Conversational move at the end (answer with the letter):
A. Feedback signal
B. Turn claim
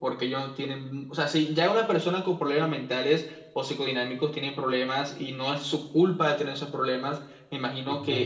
A